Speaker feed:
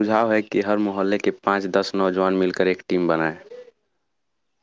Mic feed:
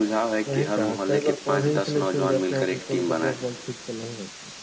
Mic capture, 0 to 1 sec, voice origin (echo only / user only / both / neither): both